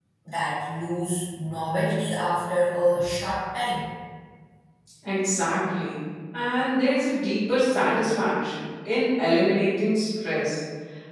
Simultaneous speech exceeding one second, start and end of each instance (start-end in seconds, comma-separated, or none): none